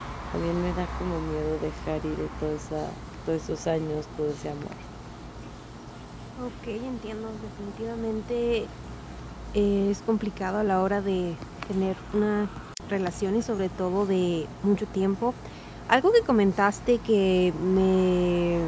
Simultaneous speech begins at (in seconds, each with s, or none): none